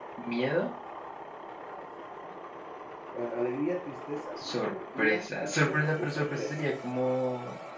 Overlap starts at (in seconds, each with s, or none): 4.4 s